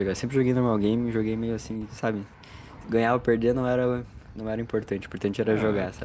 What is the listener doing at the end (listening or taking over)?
taking over